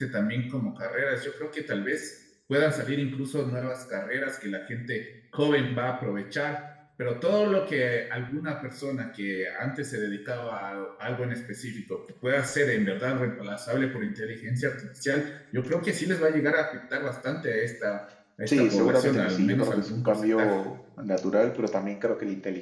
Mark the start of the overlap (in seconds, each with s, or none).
18.5 s